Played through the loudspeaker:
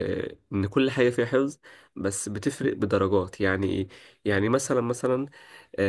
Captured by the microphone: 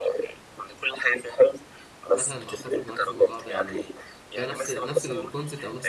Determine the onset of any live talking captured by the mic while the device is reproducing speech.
2 s

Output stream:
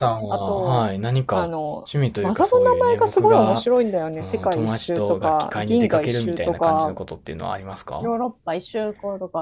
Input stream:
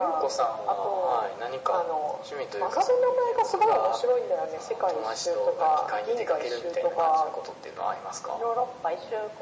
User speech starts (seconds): none

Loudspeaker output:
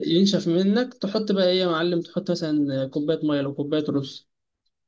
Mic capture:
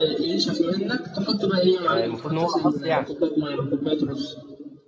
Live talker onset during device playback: 2 s

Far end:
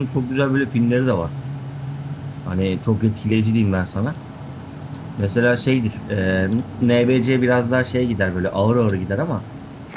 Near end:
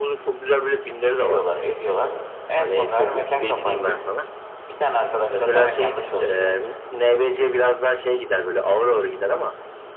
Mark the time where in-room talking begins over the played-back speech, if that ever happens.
1 s

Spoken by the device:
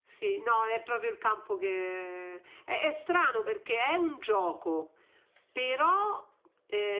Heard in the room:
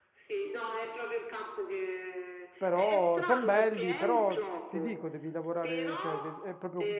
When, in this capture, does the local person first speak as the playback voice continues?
3 s

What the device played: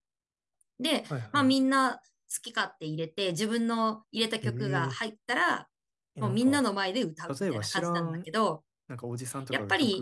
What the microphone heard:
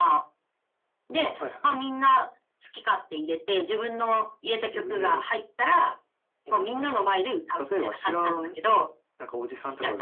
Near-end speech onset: none

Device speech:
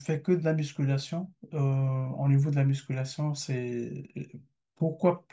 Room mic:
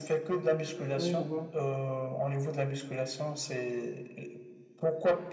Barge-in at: 1 s

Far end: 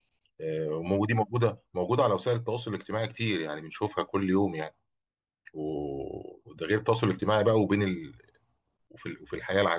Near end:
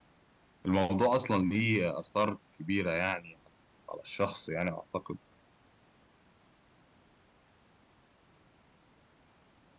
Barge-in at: 1 s

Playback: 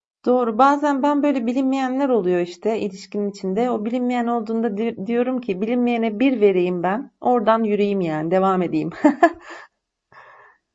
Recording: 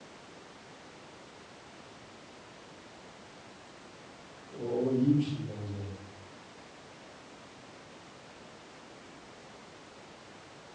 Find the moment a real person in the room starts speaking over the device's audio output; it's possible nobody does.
5 s

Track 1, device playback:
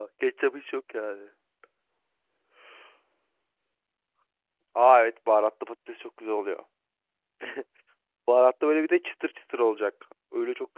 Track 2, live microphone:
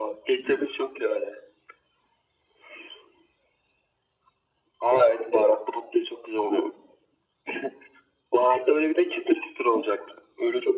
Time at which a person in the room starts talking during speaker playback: none

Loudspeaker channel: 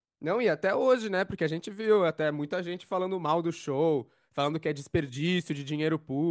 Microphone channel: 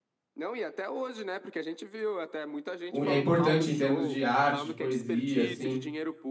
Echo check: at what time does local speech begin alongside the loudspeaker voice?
3 s

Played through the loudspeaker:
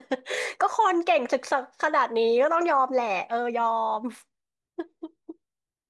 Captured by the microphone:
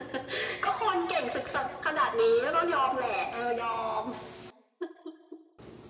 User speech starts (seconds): none

